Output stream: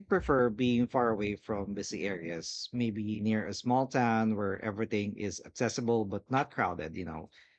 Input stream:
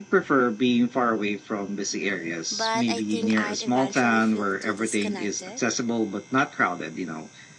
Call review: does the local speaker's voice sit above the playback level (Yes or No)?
No